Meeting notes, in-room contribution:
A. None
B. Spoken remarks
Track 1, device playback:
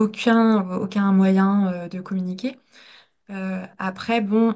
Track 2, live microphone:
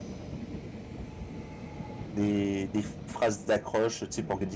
B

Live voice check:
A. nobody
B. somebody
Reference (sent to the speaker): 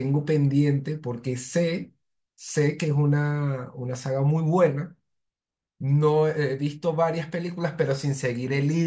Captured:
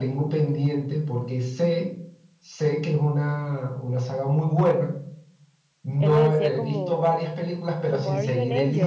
B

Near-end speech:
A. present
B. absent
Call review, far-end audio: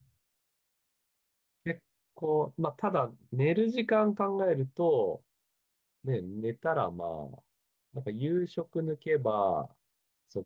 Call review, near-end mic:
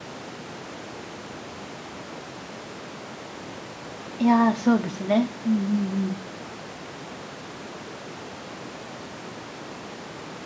A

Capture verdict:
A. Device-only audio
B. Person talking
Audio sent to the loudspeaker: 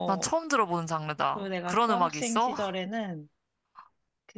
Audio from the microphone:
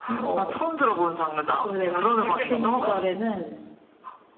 B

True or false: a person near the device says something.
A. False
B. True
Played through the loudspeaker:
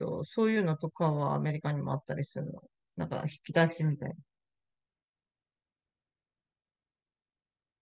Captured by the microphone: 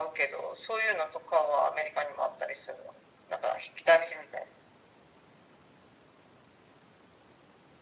A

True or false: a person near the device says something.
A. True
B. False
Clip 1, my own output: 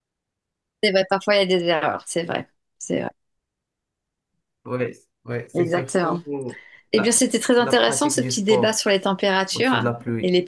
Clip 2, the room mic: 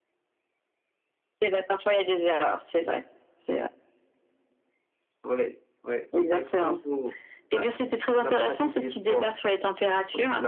B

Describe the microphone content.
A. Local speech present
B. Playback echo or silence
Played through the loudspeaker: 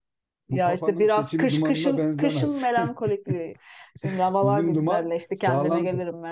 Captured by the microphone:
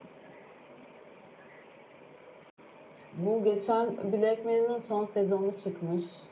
A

